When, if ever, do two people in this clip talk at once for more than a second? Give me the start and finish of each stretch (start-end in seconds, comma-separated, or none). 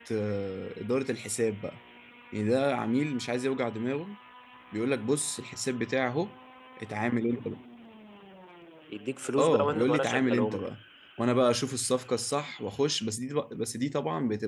9.4-10.7